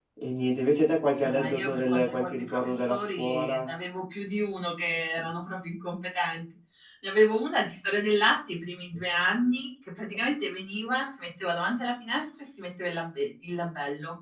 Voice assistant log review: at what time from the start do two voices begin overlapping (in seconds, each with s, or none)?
1.2 s